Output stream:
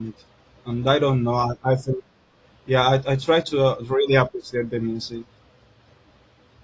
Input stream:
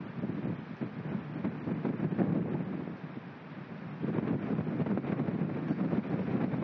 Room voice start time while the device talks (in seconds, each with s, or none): none